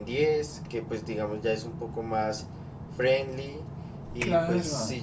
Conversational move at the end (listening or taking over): listening